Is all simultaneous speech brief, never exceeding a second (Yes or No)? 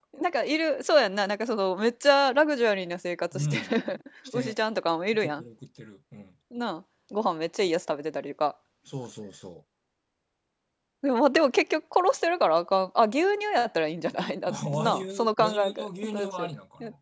No